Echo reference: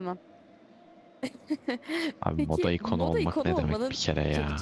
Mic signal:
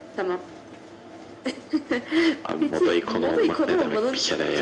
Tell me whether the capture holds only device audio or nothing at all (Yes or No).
Yes